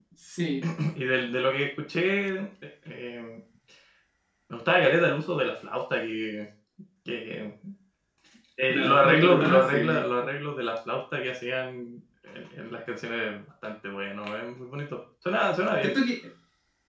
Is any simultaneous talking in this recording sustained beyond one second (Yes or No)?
Yes